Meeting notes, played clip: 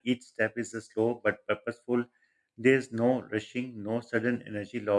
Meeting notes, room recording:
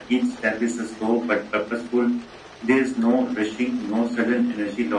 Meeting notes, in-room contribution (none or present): none